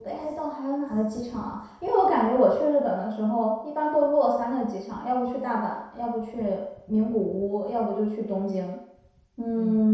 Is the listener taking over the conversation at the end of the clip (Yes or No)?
Yes